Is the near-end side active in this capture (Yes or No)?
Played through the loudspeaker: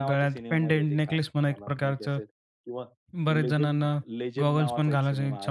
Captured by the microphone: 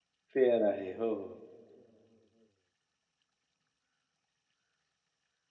Yes